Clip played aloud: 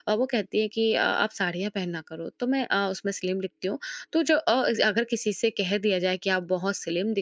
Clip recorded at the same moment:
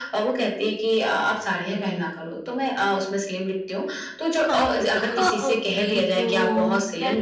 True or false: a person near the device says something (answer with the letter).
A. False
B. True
B